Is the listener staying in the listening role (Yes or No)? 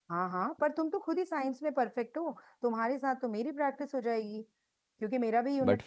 Yes